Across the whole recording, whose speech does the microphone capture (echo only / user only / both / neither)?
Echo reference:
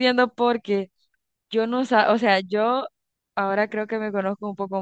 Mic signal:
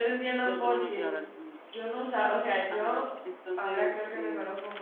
both